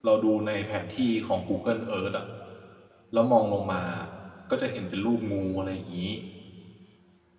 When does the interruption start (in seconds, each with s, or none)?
none